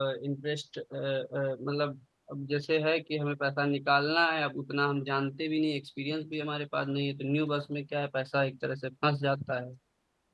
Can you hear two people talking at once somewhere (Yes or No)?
No